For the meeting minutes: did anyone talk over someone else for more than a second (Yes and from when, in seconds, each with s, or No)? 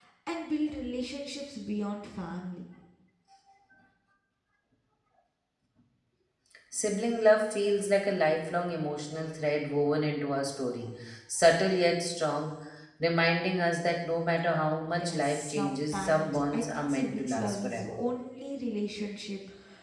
Yes, from 14.9 s